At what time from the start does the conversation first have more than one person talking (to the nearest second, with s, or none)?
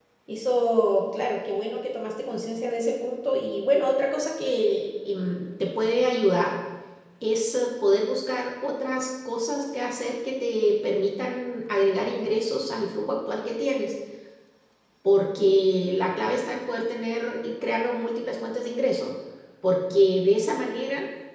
none